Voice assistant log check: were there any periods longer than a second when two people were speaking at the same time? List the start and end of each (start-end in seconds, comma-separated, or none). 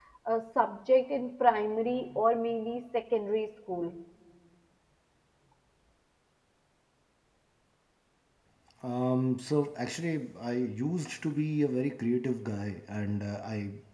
none